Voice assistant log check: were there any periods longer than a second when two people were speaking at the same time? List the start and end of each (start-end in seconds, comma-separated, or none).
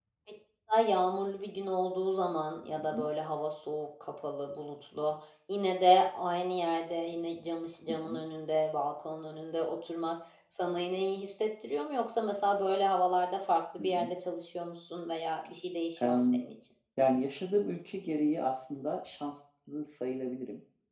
none